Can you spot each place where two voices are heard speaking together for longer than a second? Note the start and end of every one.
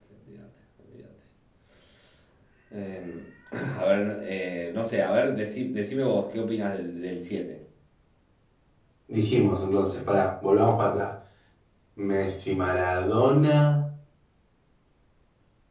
none

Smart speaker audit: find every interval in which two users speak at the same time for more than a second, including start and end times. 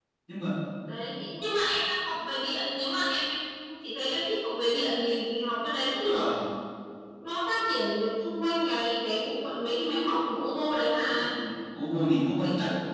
none

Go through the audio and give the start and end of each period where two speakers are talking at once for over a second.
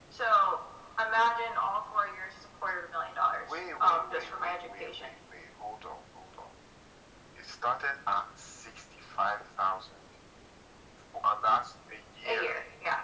3.4-5.2

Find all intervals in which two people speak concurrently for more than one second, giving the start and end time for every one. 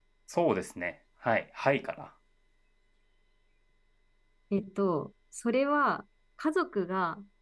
none

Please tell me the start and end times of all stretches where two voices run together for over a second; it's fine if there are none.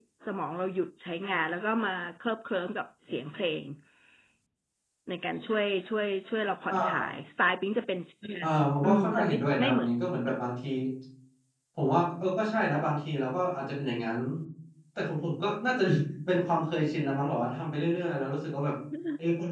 8.4-9.9

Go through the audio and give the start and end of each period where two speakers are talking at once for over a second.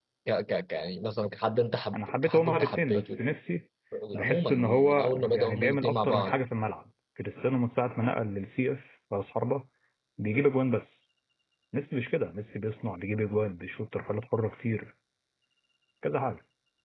1.9-3.2, 4.2-6.3

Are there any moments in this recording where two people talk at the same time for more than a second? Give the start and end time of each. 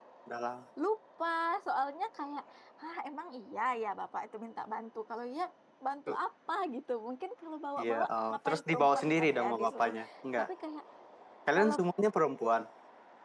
7.8-9.9

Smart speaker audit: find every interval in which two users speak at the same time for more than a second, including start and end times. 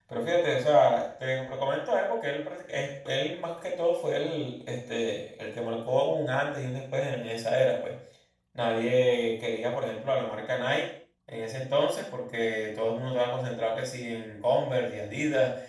none

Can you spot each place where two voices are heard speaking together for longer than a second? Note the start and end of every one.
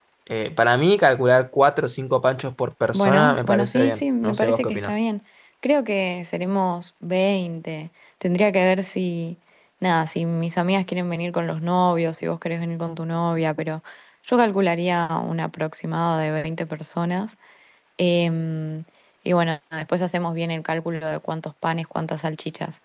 2.9-4.9

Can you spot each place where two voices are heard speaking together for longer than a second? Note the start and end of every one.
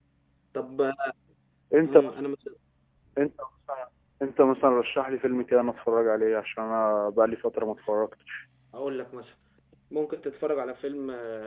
none

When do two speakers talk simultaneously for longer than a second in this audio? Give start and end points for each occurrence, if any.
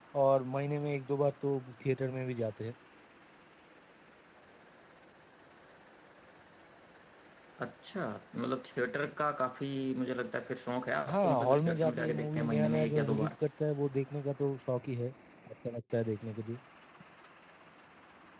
11.1-13.3

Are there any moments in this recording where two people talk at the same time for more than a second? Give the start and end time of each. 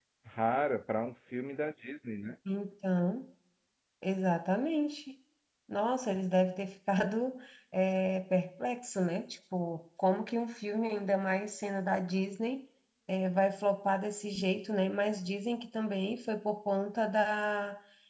none

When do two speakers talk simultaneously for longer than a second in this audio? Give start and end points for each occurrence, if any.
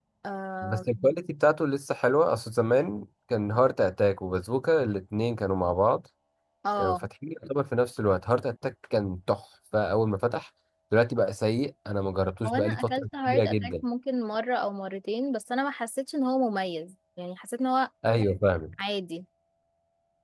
12.4-13.7

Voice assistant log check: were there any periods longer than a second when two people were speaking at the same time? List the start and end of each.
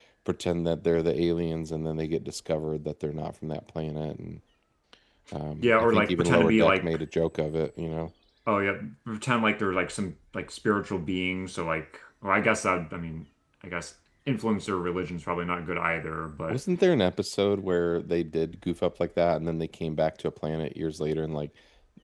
5.6-7.0

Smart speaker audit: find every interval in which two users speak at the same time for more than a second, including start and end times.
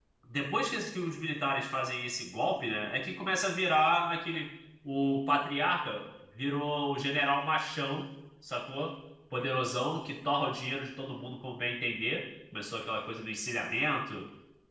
none

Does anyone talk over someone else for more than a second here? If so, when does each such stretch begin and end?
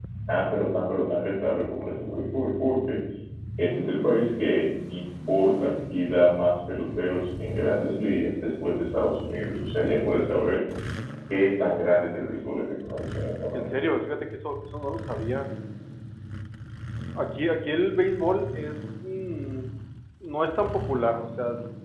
none

